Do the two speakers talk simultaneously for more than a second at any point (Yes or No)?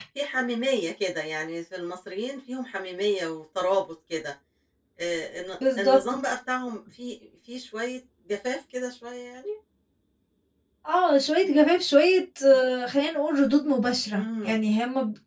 No